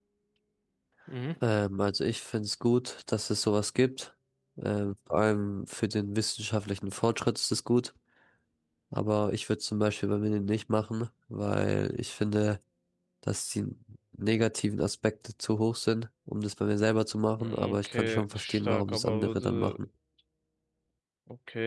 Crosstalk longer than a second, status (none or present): present